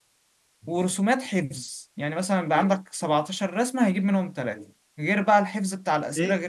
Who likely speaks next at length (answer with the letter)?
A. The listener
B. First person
A